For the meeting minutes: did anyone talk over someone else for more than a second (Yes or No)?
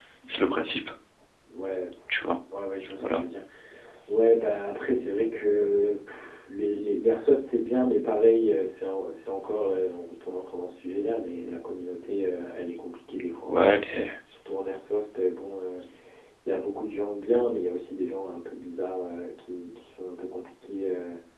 No